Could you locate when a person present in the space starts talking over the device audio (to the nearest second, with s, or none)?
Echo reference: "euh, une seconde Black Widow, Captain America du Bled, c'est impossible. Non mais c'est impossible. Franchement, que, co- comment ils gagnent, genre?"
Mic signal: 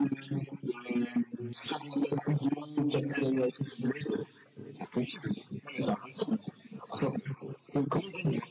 none